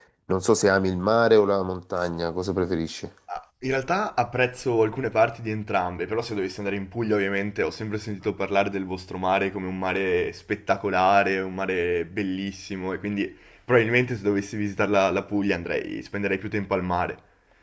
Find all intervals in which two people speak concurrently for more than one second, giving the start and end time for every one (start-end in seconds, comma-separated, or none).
none